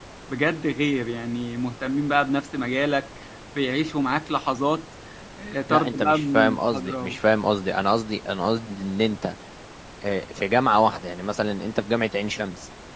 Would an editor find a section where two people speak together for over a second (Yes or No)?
Yes